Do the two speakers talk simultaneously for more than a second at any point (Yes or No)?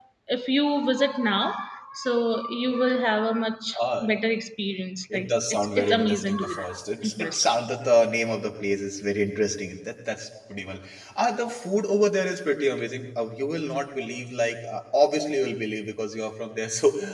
Yes